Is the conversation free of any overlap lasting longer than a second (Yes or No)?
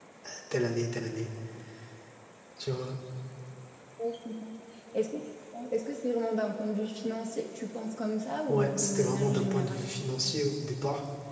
No